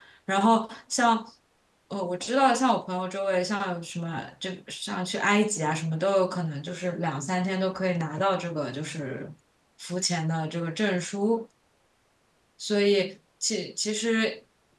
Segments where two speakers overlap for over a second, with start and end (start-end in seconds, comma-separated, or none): none